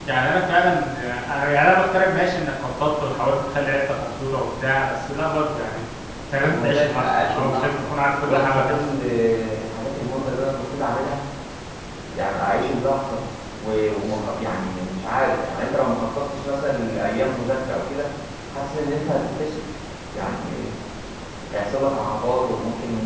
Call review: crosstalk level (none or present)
present